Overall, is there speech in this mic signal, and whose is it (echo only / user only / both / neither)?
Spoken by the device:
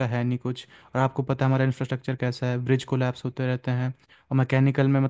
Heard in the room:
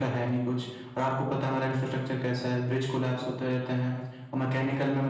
echo only